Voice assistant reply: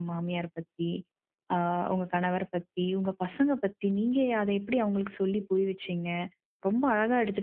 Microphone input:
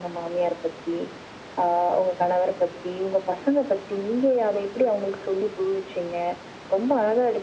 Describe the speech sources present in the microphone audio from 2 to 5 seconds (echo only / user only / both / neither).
echo only